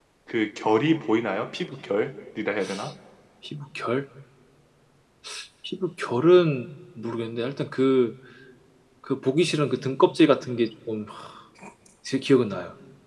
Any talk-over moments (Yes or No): No